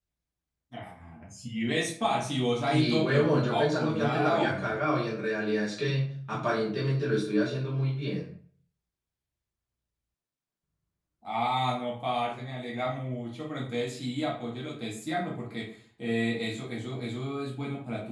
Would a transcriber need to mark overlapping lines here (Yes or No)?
Yes